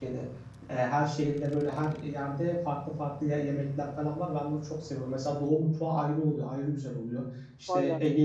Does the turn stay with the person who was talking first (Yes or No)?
Yes